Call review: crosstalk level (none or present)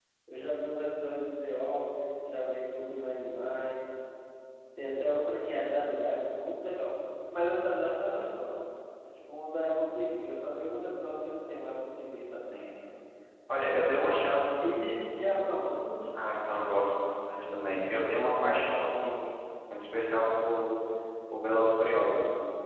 none